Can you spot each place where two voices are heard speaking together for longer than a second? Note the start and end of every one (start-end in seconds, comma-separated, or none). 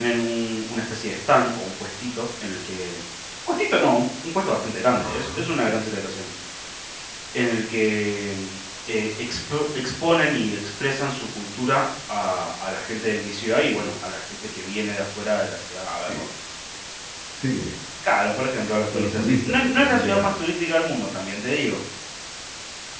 18.9-20.4